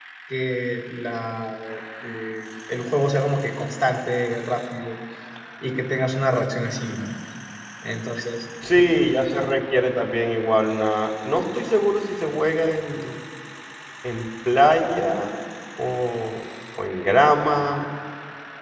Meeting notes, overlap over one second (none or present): none